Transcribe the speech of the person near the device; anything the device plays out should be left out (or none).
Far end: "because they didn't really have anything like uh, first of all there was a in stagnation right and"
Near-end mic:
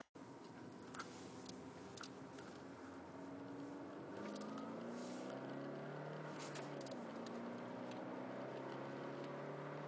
none